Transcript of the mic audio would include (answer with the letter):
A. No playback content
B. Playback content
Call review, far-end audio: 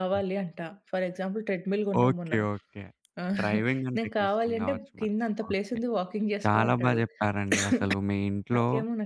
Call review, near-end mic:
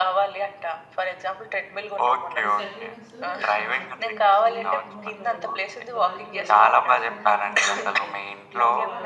B